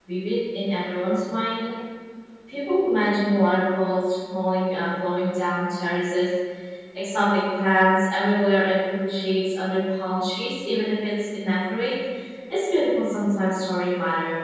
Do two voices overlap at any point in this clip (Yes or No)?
No